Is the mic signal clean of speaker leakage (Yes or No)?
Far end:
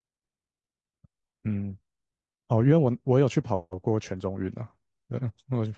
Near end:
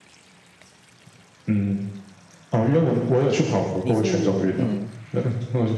No